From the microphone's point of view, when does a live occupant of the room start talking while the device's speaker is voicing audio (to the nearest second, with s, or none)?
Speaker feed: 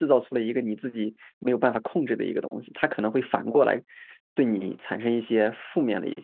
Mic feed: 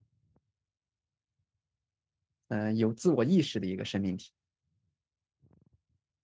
2 s